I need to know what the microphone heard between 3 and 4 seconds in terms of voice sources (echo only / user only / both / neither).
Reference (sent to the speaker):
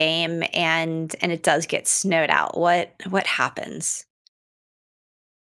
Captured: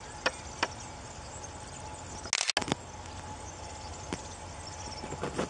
neither